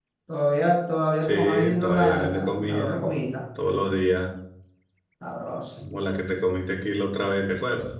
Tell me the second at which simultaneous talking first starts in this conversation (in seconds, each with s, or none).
1.2 s